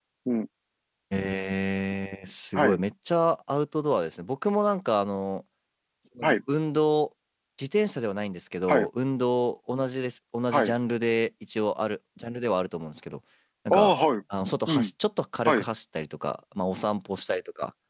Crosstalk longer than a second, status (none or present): none